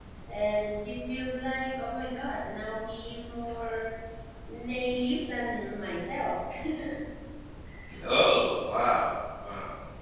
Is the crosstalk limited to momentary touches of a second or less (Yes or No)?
Yes